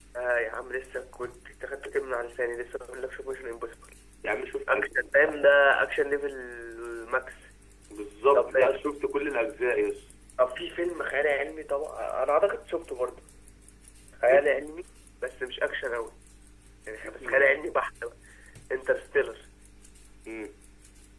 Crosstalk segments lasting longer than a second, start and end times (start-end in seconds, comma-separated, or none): none